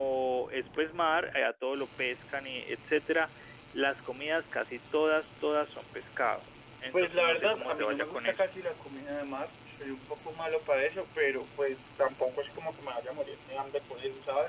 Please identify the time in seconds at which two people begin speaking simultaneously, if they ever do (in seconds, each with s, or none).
6.9 s